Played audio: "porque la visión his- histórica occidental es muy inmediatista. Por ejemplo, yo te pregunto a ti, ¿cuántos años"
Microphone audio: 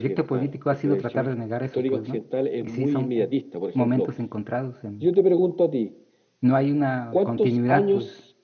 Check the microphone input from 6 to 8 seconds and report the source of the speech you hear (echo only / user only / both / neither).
both